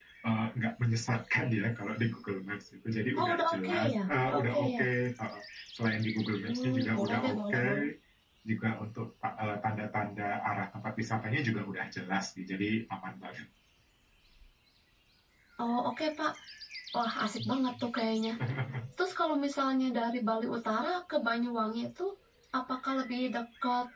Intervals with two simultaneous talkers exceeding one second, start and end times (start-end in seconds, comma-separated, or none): 3.2-4.8, 6.4-7.7